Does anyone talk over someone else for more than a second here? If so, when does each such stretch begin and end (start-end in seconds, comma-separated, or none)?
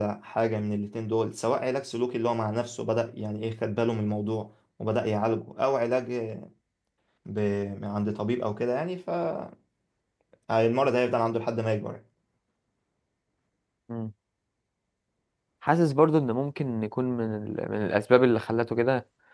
none